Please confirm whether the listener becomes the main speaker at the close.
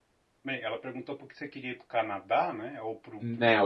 Yes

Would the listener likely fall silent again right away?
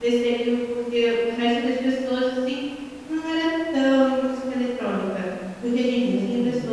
Yes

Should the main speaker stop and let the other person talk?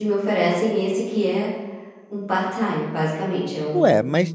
Yes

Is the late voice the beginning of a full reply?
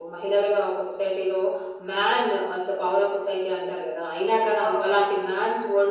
No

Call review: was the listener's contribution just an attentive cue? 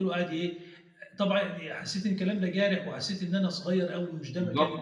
No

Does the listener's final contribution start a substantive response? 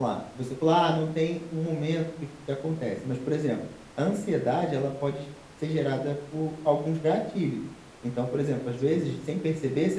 No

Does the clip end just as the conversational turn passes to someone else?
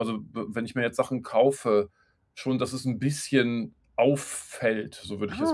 Yes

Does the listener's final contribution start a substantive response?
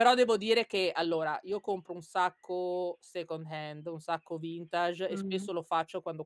No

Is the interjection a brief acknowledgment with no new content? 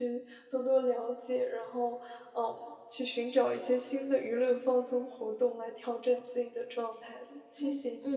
No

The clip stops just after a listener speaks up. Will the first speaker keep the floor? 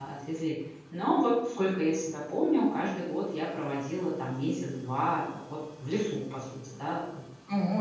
No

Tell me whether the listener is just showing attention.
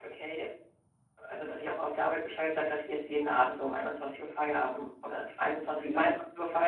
Yes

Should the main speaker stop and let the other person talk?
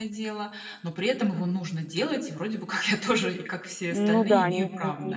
Yes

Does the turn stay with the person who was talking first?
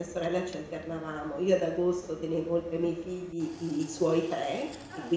Yes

